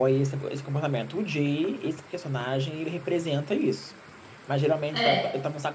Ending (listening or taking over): listening